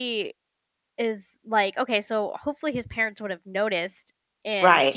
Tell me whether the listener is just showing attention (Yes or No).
Yes